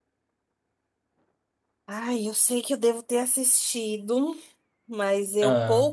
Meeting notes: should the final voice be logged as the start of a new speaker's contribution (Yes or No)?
No